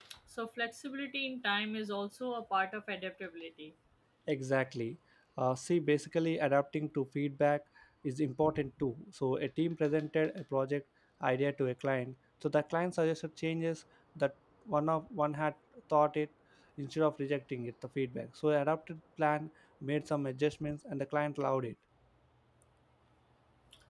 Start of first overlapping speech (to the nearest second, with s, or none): none